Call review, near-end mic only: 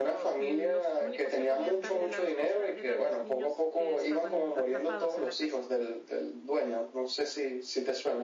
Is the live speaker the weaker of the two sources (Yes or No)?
Yes